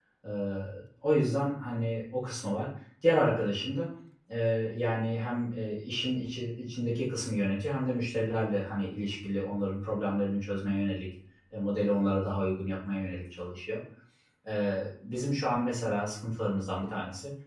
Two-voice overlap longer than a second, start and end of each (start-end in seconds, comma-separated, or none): none